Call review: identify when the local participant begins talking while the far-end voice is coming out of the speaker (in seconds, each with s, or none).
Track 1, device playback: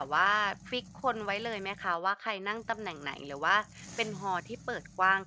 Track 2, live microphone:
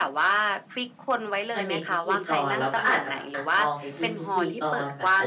1.5 s